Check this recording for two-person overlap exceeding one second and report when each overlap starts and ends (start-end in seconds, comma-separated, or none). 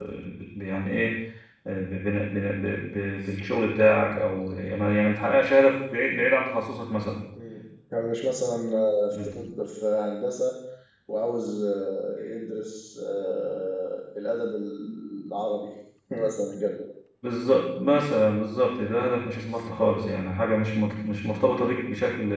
none